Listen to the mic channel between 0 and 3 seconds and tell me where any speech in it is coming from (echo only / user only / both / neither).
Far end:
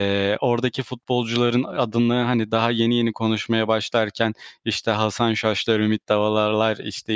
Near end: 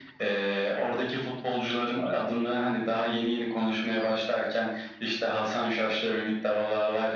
echo only